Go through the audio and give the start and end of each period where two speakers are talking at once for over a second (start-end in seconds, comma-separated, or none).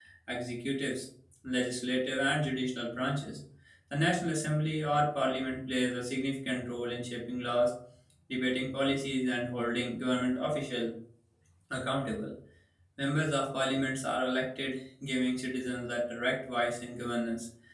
none